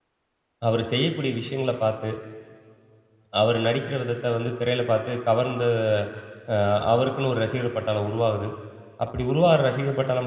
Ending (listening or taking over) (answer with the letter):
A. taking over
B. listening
B